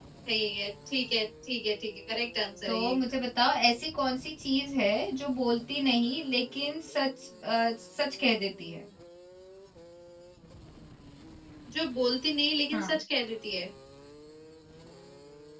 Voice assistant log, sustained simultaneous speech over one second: none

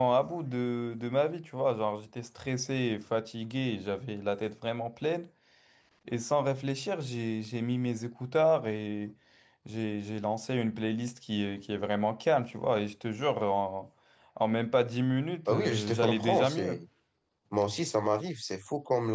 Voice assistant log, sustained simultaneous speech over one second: present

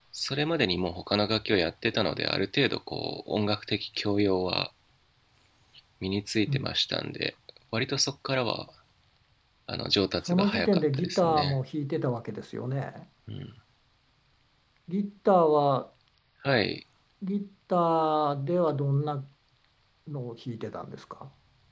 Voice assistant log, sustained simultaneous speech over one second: present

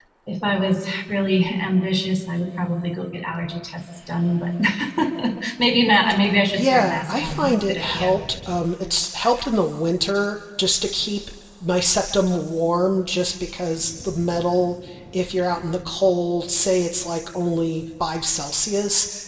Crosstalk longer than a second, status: present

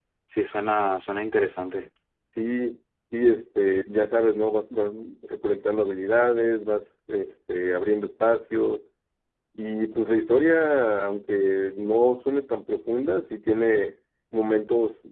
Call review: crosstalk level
none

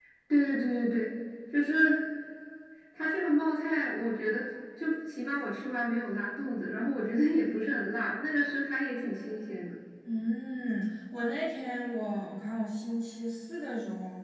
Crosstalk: none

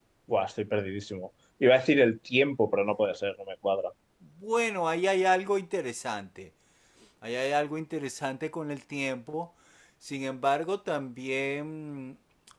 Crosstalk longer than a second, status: none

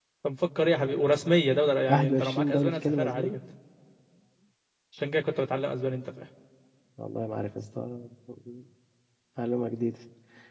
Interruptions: present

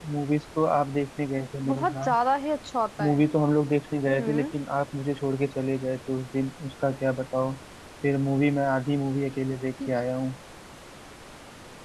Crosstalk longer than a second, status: none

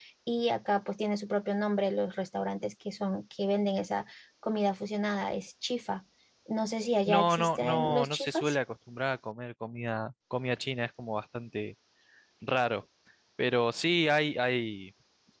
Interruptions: present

